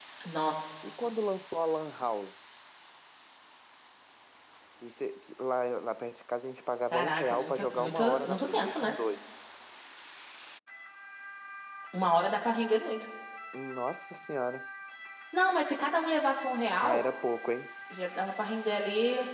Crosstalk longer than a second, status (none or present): present